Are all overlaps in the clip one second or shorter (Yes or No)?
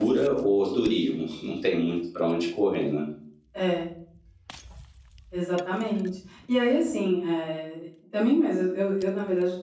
Yes